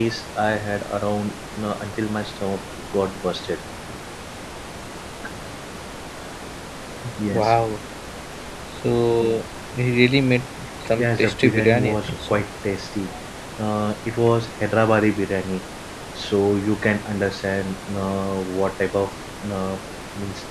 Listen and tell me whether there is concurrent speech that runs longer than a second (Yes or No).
Yes